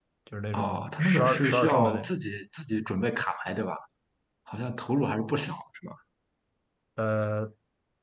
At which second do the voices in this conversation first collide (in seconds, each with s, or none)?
0.5 s